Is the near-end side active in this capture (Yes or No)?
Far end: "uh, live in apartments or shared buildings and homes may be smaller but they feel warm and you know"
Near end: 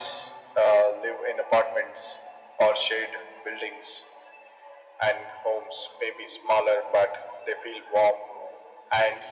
No